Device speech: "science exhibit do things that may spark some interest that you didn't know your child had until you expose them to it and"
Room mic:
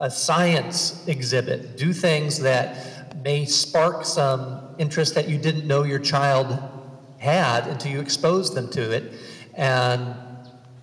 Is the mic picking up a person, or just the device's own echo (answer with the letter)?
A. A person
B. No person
B